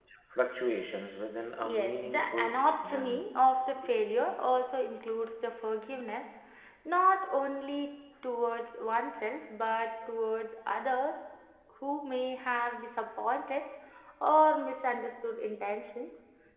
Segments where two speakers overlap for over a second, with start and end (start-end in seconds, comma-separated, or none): 1.7-3.2